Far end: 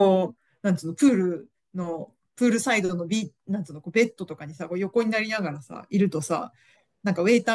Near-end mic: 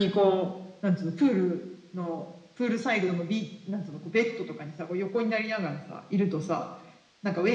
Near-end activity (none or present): none